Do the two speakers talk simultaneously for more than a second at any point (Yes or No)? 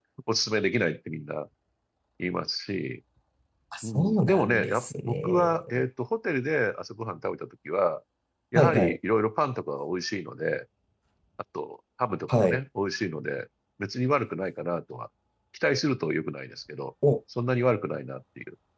Yes